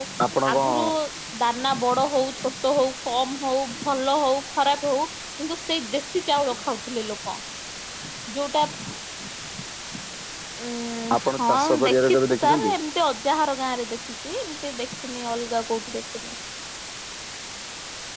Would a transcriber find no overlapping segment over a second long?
No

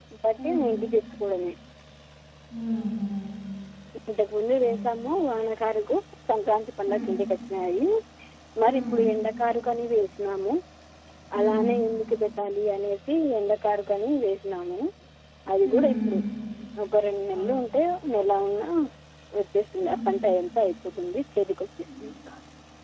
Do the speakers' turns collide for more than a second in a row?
No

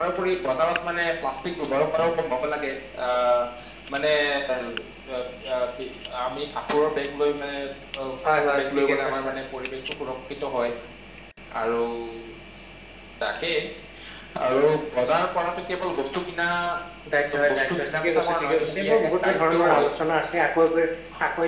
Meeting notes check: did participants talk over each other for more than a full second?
Yes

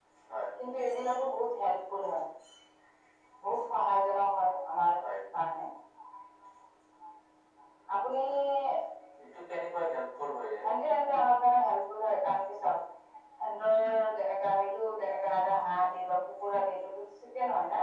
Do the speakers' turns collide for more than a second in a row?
No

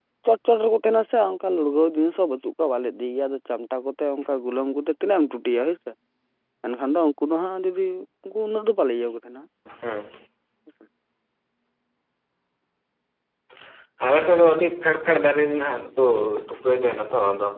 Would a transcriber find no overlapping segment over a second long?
Yes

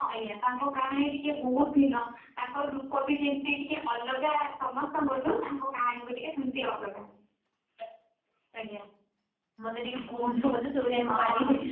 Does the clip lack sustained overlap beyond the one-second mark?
Yes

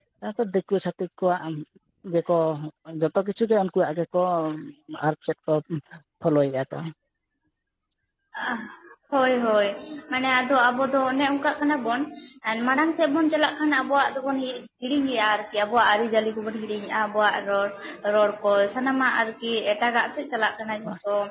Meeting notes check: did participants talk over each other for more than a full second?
No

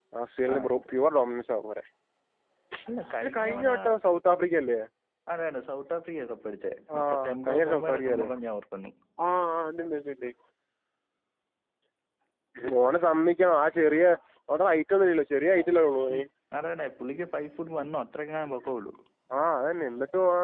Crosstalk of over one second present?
Yes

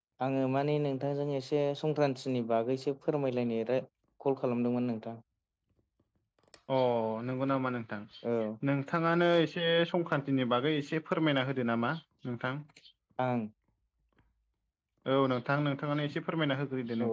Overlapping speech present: No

